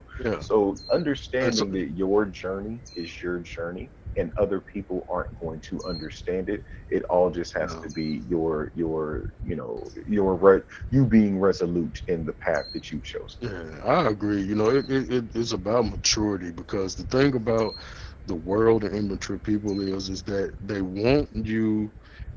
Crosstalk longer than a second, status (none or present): none